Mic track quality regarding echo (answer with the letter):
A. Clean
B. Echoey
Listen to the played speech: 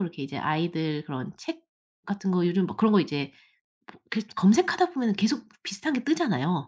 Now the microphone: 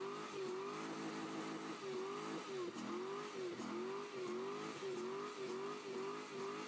A